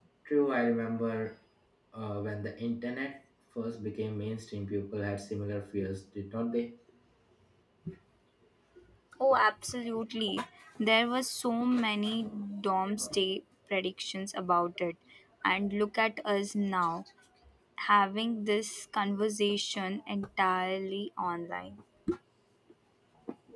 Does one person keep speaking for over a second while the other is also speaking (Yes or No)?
No